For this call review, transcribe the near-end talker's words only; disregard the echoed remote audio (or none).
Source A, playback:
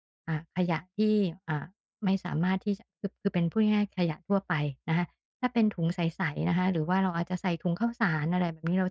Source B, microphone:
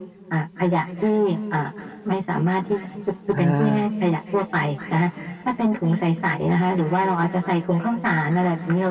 อา